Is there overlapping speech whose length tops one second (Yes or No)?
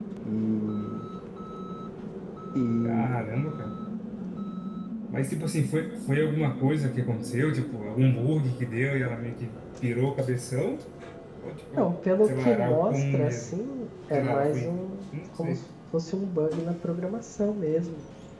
Yes